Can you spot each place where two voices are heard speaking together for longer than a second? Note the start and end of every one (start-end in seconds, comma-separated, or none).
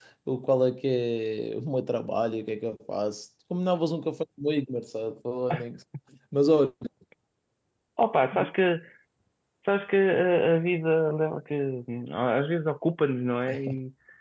none